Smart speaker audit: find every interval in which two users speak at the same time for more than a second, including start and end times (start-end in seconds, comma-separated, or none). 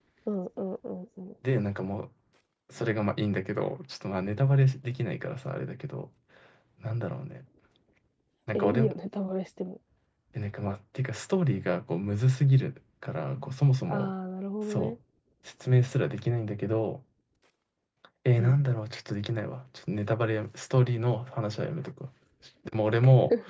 none